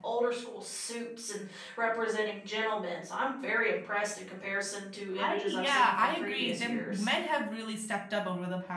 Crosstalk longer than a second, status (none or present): present